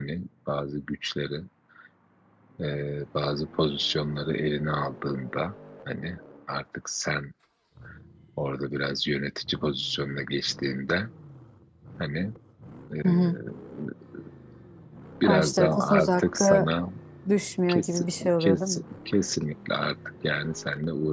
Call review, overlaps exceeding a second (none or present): present